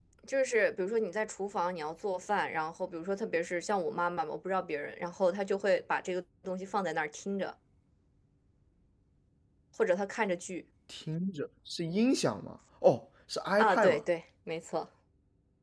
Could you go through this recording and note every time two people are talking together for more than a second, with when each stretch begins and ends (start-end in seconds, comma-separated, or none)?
none